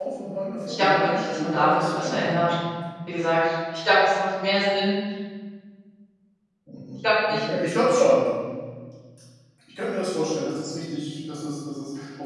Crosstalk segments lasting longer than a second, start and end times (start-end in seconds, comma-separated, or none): 0.7-2.4